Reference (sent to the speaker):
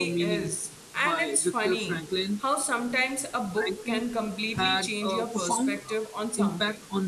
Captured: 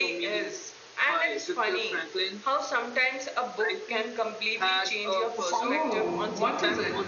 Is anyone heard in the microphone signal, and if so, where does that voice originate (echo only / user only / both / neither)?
both